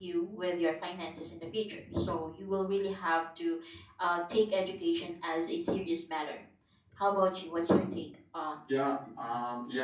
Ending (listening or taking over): taking over